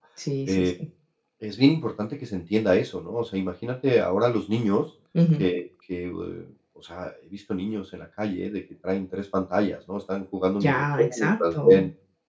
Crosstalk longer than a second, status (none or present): present